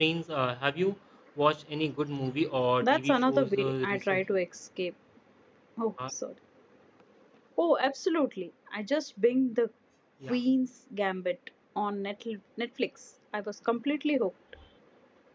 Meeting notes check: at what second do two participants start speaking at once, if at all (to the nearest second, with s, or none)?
3 s